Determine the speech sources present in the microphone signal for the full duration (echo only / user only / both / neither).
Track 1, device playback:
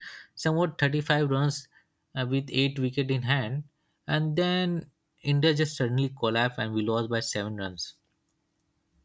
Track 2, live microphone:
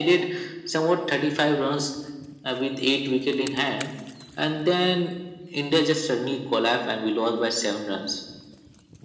echo only